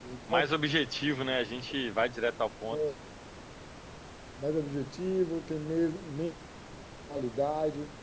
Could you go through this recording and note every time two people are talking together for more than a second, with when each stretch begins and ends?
none

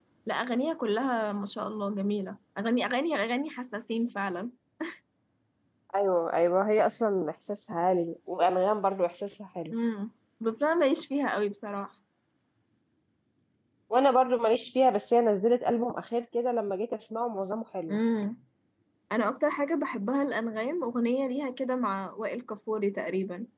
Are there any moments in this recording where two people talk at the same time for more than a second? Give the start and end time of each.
none

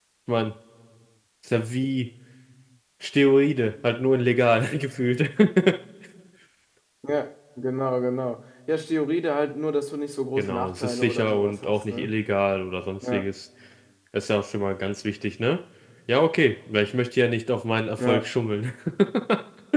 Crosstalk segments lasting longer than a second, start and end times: 10.4-12.2

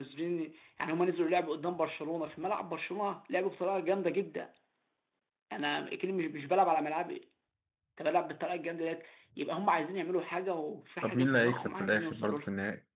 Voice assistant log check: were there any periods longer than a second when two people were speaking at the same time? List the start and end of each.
11.0-12.4

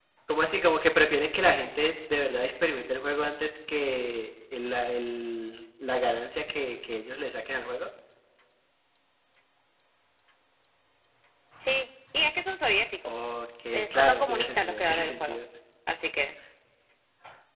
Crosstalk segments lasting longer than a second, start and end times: 13.9-15.4

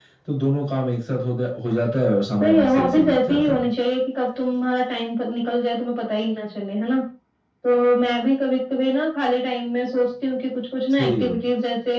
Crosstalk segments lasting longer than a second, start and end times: 2.4-3.6

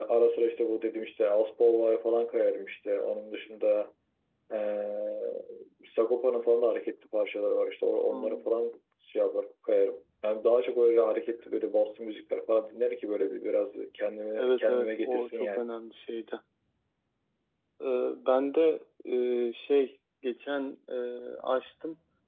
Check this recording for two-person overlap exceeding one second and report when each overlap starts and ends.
14.4-15.6

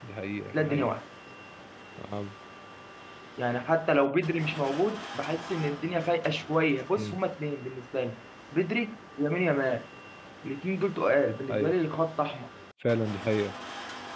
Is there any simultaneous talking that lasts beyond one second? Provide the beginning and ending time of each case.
none

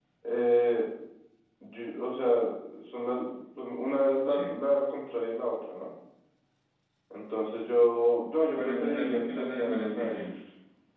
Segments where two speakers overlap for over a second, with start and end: 8.5-10.3

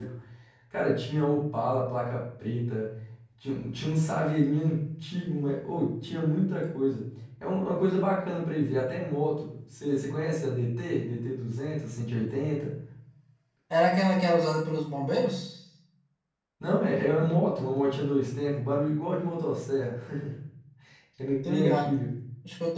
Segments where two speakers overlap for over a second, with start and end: none

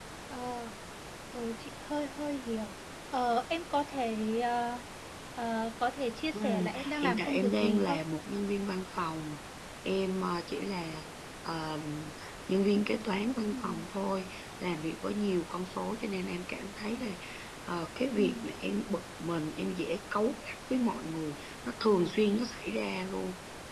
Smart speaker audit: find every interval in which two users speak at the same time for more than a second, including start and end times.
6.3-8.0

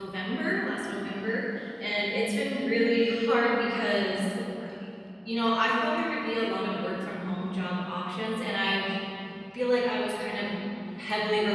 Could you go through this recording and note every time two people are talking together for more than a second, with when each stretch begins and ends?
none

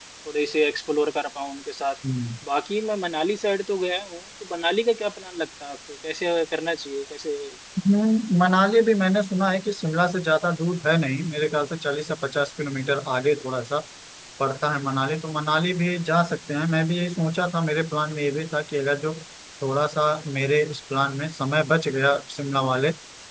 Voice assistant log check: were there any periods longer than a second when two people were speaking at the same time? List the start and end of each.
none

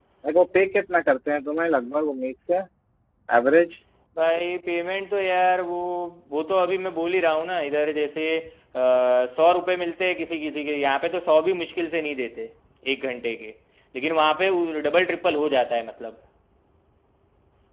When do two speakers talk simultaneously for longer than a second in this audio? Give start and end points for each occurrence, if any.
none

